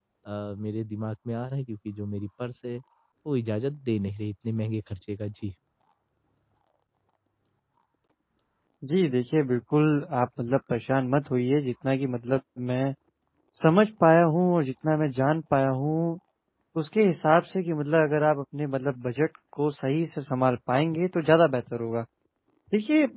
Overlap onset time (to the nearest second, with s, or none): none